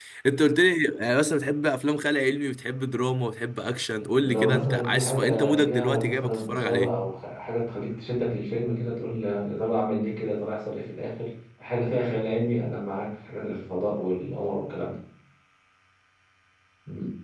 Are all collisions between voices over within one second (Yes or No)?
No